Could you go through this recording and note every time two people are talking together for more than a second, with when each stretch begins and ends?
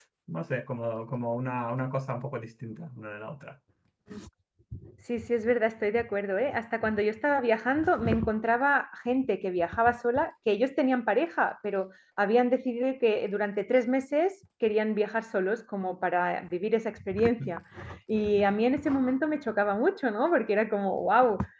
none

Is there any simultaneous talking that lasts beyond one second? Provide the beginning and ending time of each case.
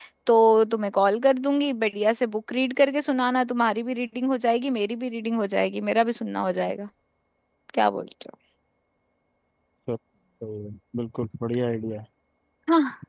none

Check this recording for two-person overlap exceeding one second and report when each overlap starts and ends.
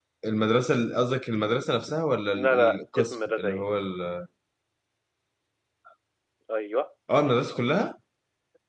2.4-3.6

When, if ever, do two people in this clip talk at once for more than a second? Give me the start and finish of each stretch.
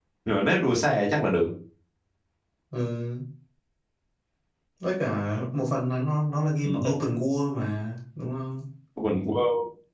none

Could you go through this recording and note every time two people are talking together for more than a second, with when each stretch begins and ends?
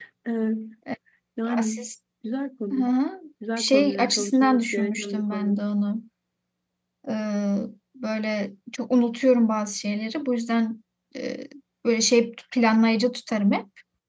3.6-5.6

